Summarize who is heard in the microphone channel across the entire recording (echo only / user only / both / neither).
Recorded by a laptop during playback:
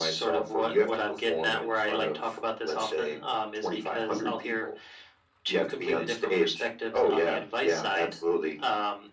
echo only